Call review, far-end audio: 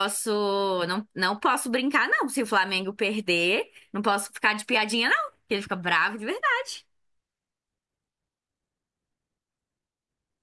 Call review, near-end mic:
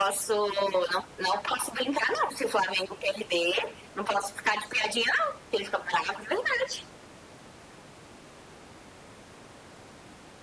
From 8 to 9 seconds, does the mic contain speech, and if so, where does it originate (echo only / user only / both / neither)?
neither